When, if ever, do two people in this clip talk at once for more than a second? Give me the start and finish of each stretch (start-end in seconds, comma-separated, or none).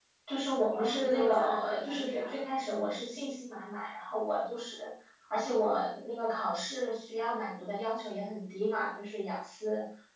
0.7-2.4